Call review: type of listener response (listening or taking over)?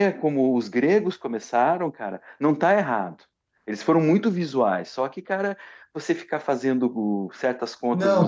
taking over